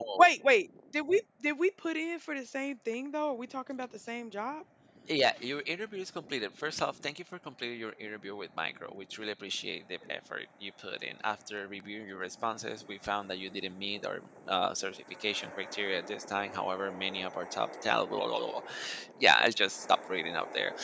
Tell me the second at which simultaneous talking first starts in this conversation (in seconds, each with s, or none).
none